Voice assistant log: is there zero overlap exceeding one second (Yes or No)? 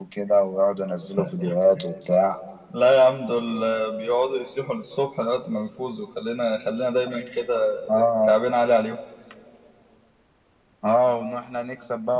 Yes